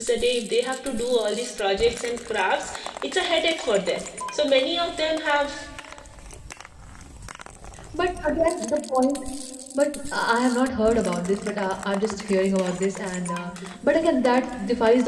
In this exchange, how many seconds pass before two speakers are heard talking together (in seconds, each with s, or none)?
none